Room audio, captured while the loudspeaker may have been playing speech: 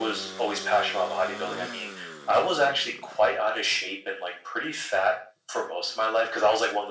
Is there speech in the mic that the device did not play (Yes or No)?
No